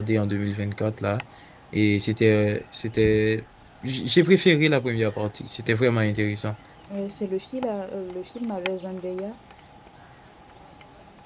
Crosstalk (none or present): none